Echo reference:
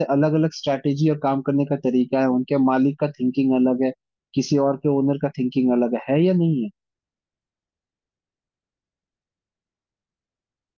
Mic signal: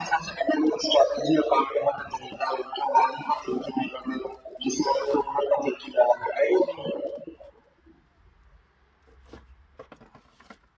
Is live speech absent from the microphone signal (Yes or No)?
Yes